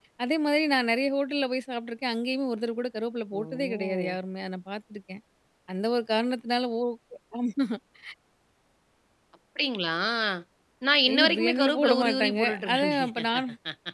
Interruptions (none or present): present